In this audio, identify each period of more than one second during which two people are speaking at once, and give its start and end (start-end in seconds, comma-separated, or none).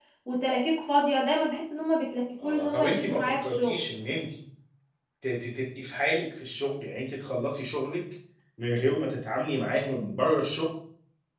2.4-3.8